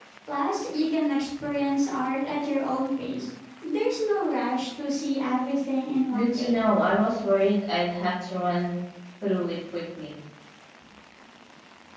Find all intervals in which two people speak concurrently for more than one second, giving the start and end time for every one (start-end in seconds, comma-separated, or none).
none